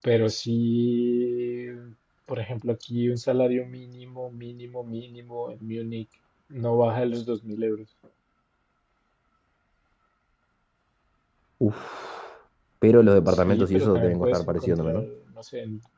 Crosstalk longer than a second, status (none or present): present